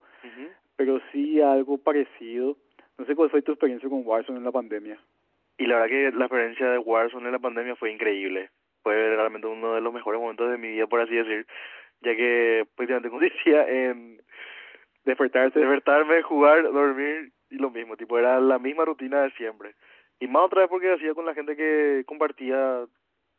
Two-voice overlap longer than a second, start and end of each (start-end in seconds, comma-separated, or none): none